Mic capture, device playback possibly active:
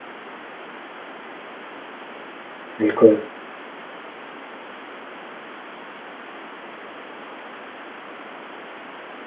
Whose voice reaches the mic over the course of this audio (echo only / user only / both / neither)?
user only